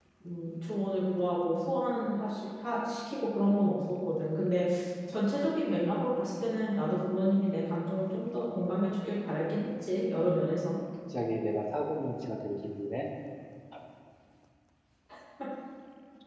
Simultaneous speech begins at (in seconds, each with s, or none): none